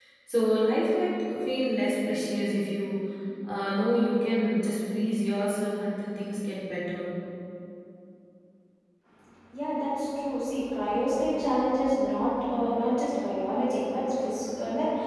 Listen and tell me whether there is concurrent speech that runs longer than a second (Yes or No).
No